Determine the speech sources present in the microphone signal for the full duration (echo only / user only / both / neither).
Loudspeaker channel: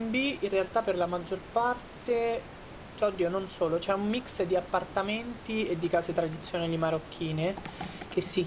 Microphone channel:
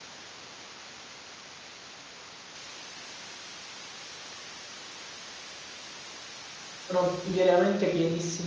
user only